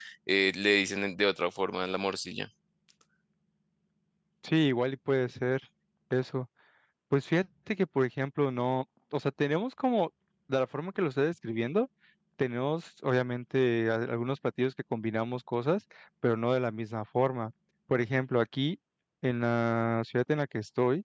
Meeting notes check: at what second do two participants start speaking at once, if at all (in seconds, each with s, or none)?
none